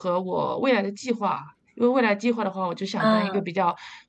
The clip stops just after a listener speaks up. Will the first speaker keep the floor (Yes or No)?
Yes